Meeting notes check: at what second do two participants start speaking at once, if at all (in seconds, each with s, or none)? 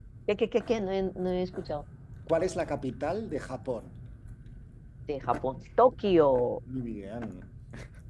none